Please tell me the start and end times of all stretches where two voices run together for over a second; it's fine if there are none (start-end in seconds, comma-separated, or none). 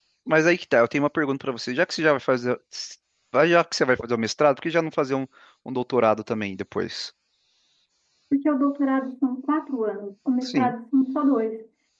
none